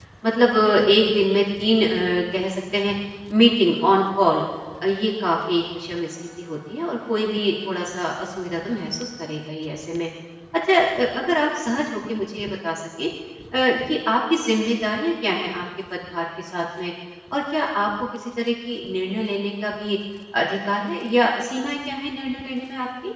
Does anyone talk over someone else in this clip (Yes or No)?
No